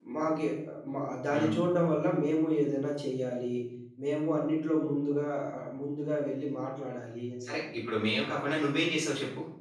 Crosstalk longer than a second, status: none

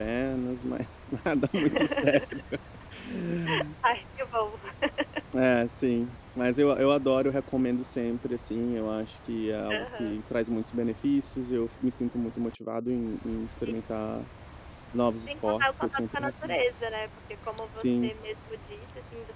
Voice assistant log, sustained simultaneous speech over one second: present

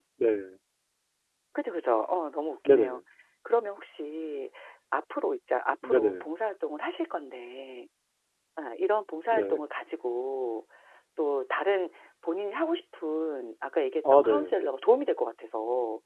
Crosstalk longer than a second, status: none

